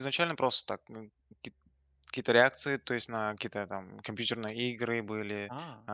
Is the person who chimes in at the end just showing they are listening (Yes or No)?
Yes